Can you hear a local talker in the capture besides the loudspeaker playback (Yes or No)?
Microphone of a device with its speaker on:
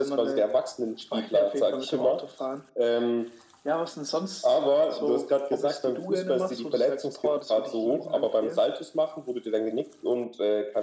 No